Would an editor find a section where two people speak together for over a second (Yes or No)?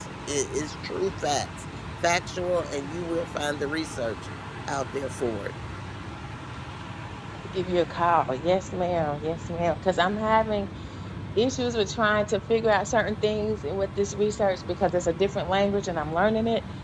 No